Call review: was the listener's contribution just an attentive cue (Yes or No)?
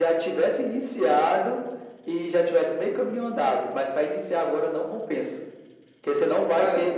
Yes